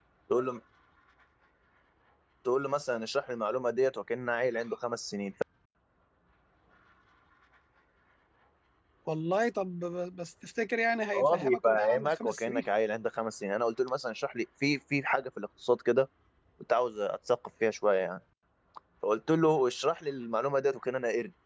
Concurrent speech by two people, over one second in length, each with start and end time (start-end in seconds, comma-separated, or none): 11.1-12.6